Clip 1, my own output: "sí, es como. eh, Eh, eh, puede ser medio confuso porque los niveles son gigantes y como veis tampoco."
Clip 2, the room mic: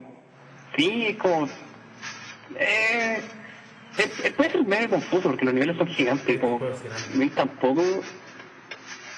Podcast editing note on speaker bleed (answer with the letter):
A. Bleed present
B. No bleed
A